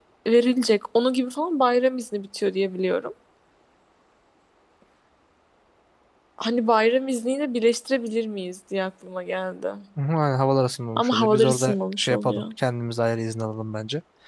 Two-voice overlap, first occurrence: 11.0 s

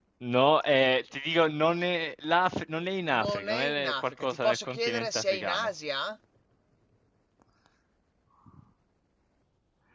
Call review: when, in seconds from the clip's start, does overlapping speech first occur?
3.1 s

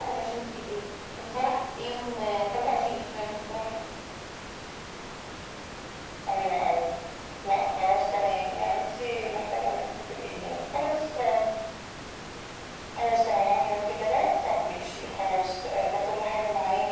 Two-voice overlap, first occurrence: none

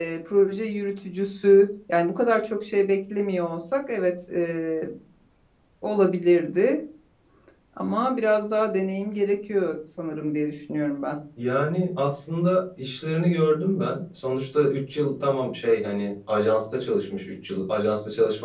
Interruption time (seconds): none

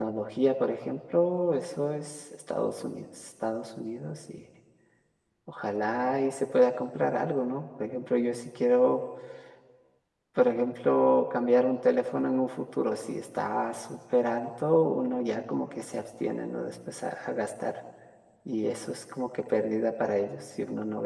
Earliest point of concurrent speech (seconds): none

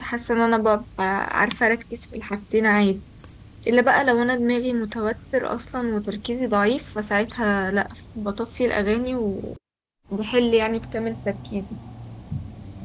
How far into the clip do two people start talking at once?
none

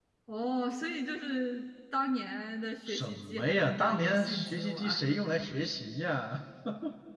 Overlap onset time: 2.9 s

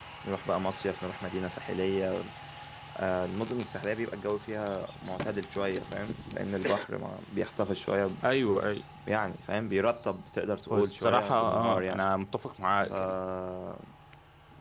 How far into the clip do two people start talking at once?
10.7 s

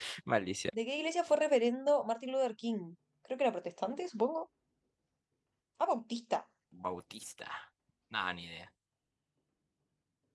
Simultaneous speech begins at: none

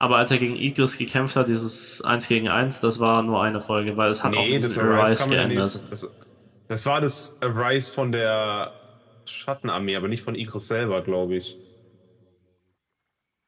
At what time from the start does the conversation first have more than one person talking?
4.2 s

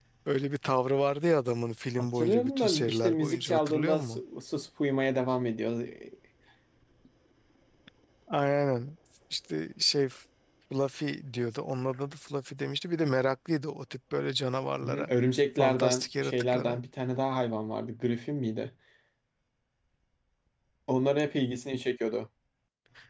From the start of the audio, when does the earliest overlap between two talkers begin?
2.0 s

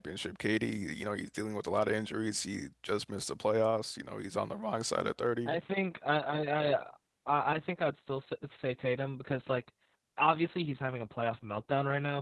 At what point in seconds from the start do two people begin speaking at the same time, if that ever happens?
none

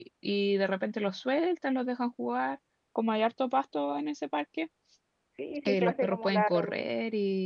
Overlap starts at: 5.7 s

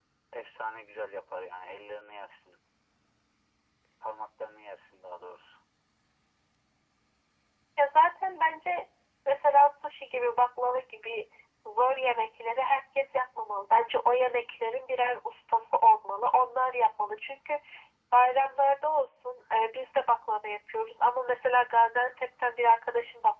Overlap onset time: none

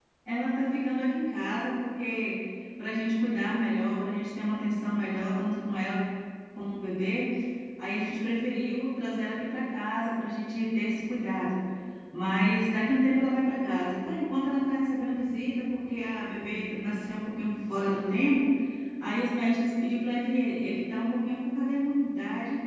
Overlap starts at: none

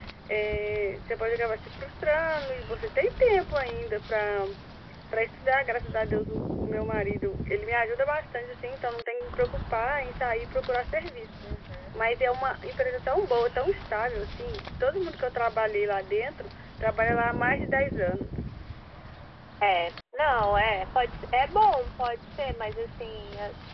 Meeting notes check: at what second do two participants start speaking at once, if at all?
none

